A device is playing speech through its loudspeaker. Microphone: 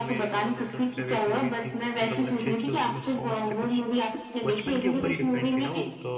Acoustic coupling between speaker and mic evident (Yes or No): Yes